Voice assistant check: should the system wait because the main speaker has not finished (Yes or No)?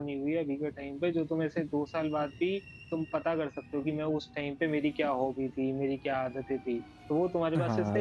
No